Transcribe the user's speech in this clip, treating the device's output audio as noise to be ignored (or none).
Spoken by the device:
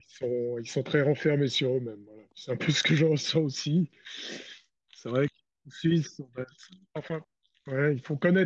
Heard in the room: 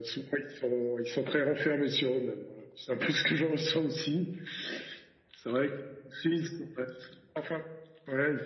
none